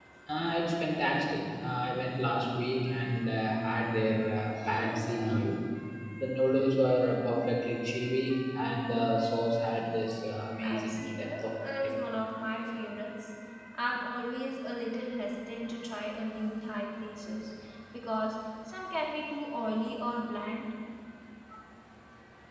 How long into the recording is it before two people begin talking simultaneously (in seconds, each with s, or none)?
10.6 s